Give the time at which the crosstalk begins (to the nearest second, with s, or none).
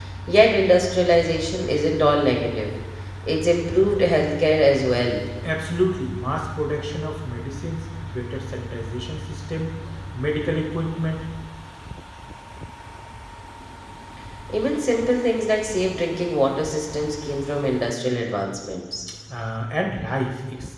none